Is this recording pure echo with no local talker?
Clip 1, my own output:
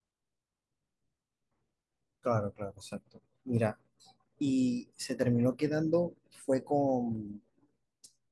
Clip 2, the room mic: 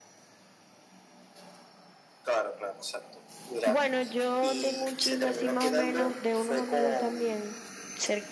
No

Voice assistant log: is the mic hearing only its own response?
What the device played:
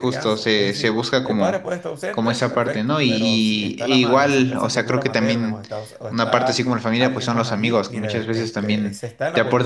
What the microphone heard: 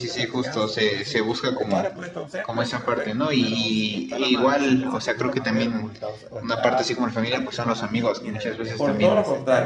No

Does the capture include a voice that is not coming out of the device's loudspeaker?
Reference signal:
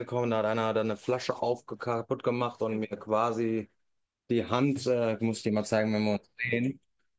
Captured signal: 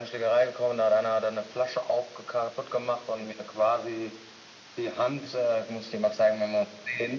No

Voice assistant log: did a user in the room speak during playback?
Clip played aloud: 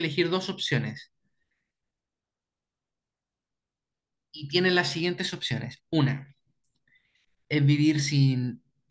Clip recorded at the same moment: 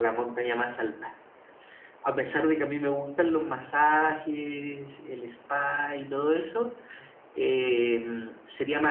Yes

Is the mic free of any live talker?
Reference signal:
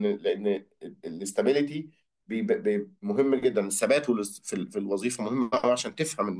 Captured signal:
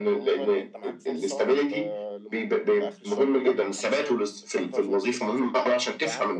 No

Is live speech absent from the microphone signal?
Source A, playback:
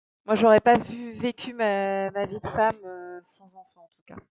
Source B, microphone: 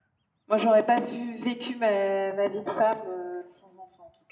Yes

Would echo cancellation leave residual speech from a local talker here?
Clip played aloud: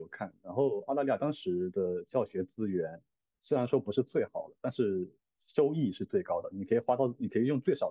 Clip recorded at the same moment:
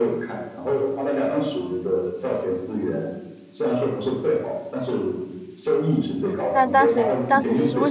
Yes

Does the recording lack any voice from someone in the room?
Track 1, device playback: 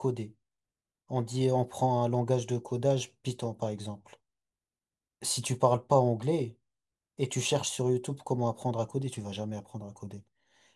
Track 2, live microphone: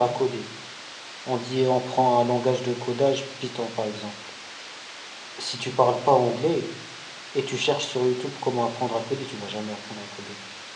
Yes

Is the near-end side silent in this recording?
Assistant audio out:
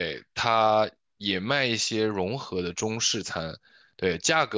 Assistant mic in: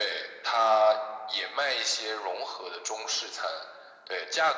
Yes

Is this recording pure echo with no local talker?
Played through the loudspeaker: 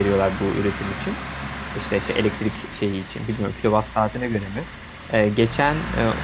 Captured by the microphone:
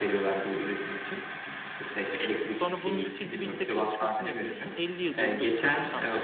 No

